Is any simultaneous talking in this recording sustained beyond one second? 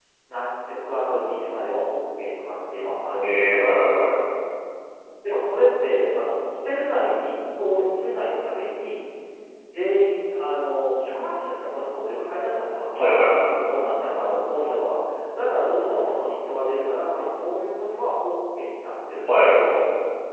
No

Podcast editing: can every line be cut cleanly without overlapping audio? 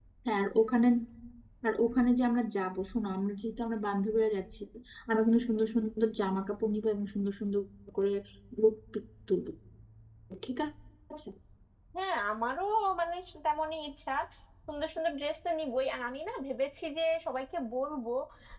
Yes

